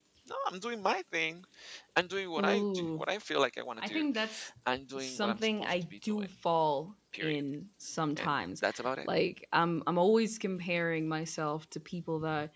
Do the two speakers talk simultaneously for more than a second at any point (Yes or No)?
Yes